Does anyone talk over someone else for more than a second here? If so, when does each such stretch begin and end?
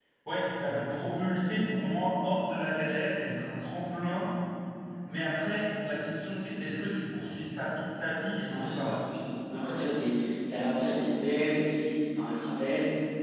none

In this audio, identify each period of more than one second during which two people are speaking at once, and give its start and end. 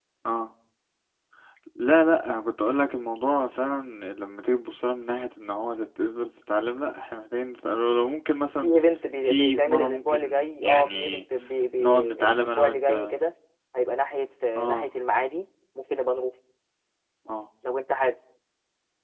9.2-11.2, 11.8-13.2

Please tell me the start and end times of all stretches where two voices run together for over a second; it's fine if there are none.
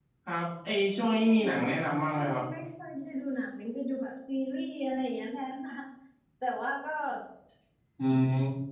1.2-2.4

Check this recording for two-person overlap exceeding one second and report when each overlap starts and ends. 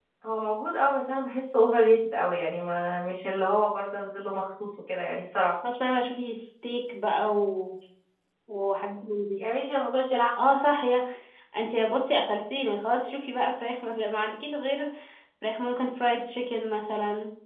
none

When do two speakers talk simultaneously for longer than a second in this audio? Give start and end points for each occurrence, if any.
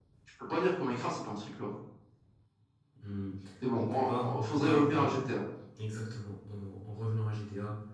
3.8-5.1

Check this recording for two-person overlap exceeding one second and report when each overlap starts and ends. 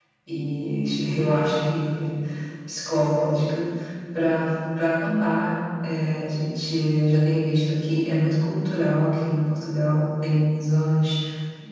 none

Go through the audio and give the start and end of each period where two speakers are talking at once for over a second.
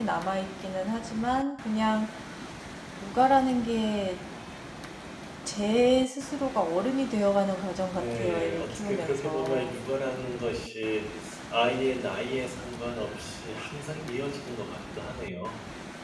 7.9-9.8

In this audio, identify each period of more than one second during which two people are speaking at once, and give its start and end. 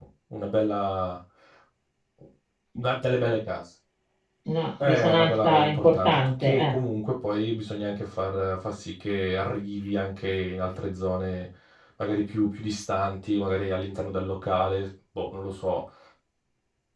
4.8-6.7

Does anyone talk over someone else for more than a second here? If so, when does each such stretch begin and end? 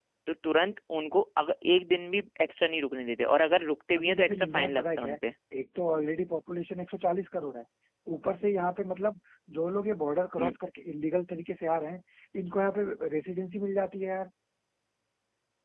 4.0-5.2

